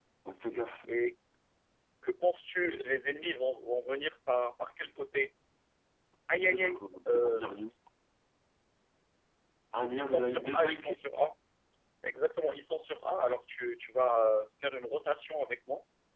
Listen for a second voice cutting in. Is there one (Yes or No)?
Yes